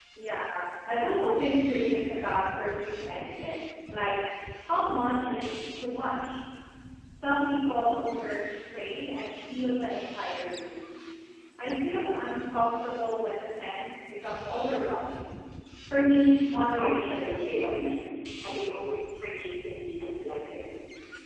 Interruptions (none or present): present